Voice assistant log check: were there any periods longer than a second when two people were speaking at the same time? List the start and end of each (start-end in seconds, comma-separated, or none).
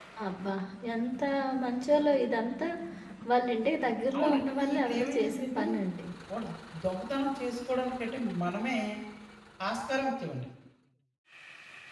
4.2-5.6